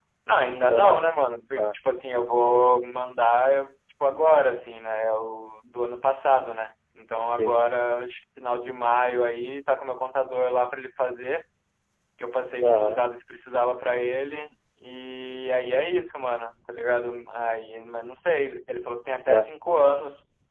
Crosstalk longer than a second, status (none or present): none